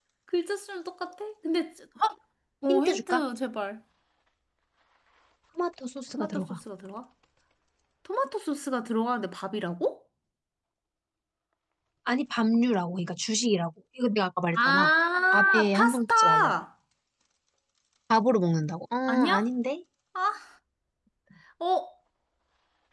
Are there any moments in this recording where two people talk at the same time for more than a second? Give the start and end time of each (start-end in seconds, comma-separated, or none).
15.3-16.5